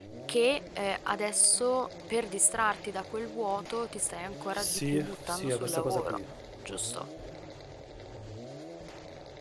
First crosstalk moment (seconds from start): 4.4 s

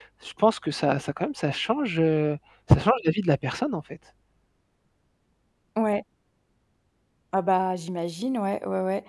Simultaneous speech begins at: none

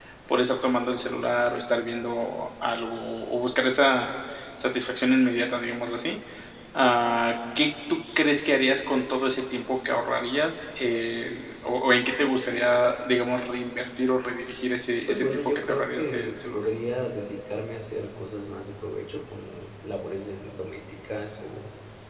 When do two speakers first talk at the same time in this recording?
15.1 s

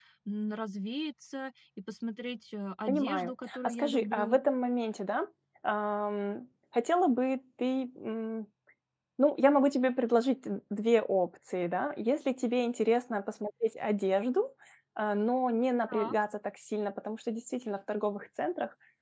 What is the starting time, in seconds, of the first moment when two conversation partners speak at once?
2.9 s

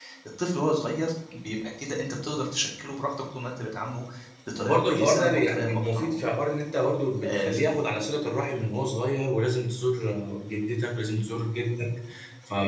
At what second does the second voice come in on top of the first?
4.6 s

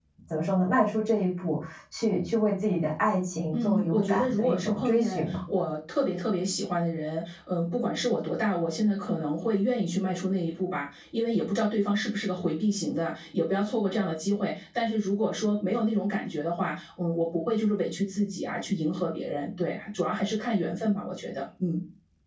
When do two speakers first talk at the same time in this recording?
3.5 s

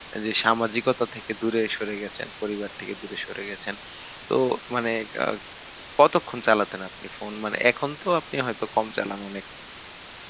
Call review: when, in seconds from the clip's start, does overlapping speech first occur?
none

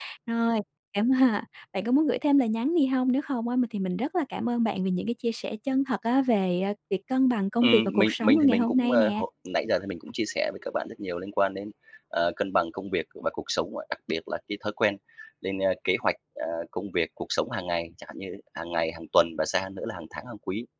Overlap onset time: 7.6 s

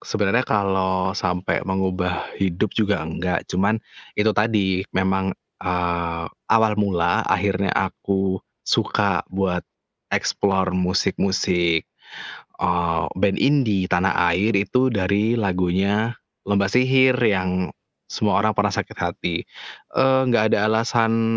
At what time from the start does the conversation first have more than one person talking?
none

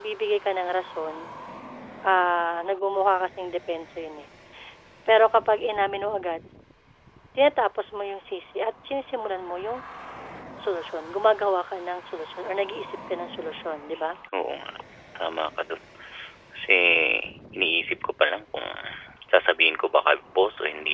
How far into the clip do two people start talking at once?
none

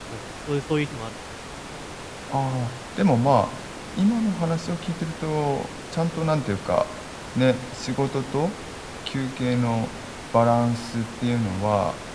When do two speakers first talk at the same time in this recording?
none

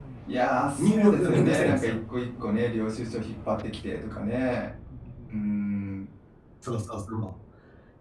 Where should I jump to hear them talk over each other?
0.8 s

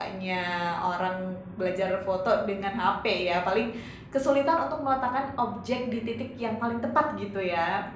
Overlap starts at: none

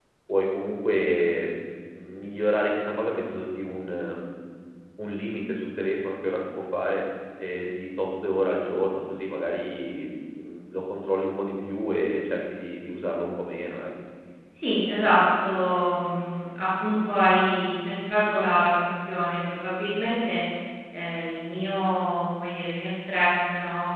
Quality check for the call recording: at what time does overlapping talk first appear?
none

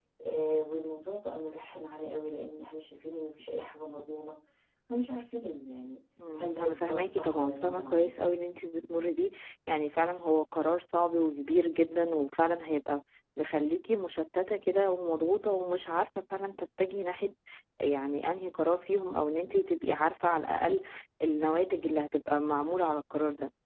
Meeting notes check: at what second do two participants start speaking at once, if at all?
6.2 s

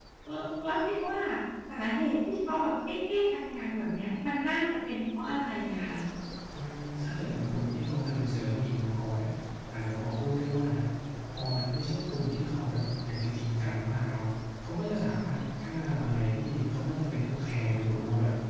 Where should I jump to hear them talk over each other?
none

